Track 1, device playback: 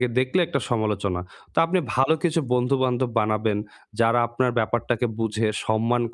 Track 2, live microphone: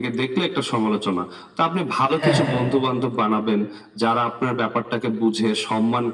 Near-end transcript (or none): হ্যাঁ, হ্যাঁ।